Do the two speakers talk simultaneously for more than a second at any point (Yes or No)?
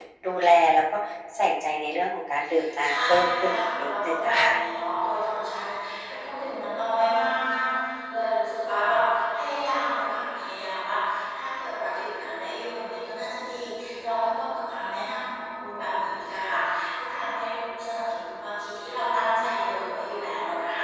Yes